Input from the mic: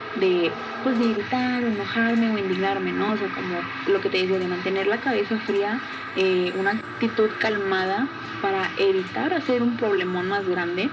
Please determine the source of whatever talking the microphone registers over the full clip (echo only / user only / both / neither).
echo only